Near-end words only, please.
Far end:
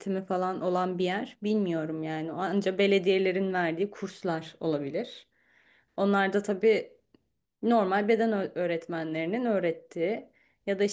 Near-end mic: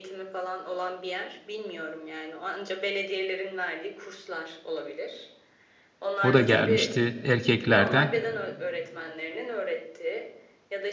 O da gelmişti erkeklerden.

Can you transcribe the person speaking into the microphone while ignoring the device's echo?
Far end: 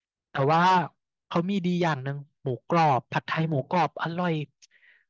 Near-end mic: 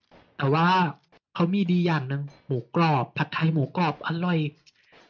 none

